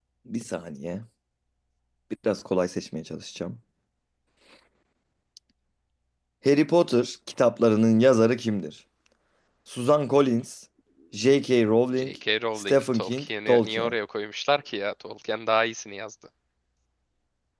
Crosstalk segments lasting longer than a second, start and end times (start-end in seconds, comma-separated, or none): 12.6-13.9